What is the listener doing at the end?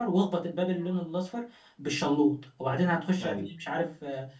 listening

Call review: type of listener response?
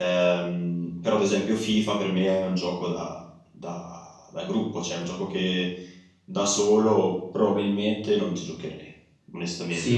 taking over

